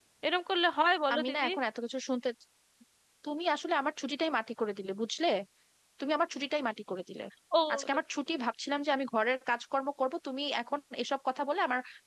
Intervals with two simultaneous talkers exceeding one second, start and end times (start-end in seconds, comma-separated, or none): none